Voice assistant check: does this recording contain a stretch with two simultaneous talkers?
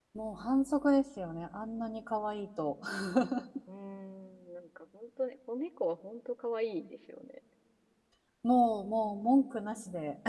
No

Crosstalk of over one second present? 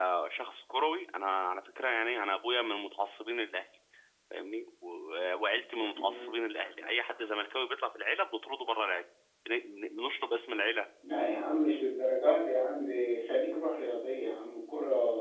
No

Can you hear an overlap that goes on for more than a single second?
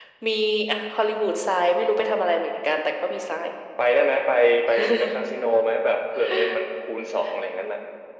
No

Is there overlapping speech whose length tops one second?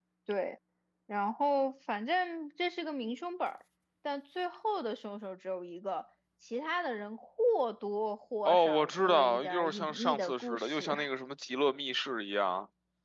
Yes, from 8.4 s

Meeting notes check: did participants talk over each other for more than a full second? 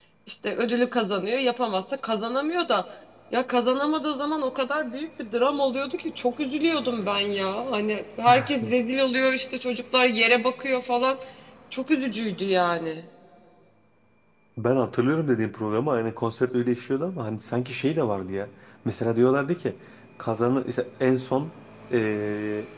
No

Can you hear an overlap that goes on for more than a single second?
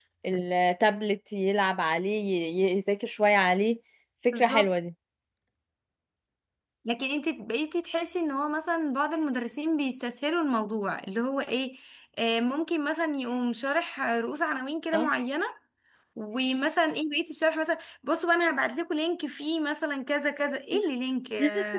No

